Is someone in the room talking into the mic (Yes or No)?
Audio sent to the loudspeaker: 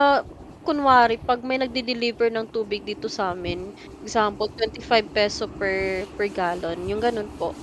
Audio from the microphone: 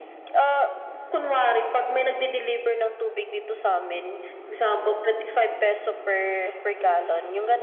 No